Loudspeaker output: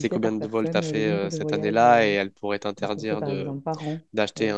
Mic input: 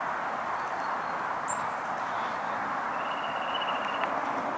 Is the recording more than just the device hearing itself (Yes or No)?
No